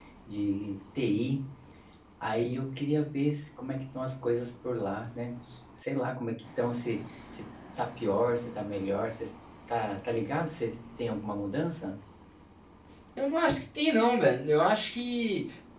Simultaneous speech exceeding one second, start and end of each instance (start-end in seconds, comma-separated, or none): none